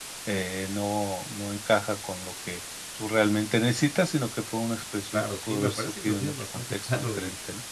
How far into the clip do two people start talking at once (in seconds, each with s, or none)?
5.1 s